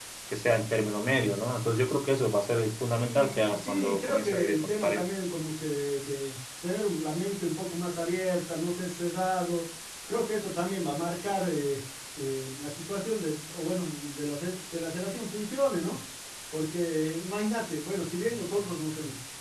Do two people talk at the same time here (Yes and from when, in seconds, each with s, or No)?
Yes, from 3.0 s